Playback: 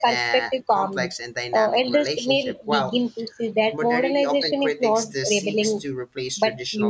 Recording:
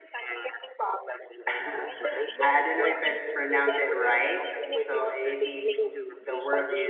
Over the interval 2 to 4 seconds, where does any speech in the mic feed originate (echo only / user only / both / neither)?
both